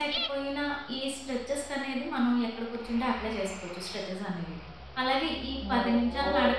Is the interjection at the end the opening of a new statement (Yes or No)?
No